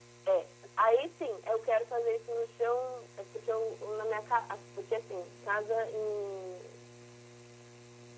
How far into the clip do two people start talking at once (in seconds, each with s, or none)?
none